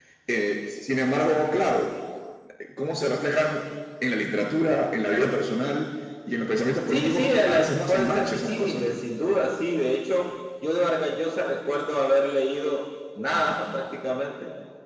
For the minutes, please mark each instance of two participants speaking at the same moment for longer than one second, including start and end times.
6.9-9.0

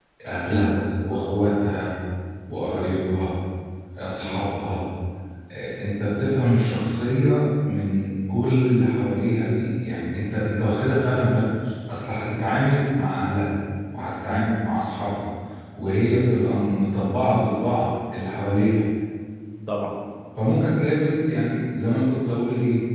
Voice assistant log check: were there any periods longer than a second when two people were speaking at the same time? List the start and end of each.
0.5-1.9

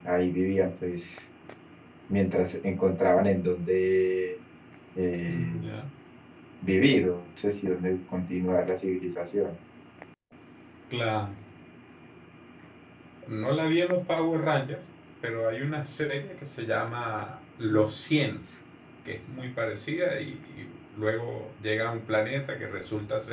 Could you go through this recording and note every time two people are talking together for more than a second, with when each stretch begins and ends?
none

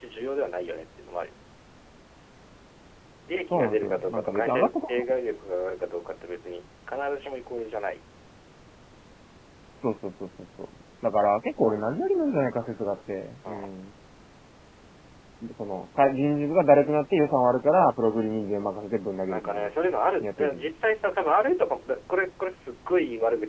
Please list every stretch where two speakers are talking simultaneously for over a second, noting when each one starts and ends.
3.5-5.1

